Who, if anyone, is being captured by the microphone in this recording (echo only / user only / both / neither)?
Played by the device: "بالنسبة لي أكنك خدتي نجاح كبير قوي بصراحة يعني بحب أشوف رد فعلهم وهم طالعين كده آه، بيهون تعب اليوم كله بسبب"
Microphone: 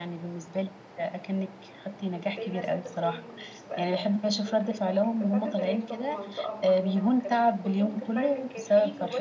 both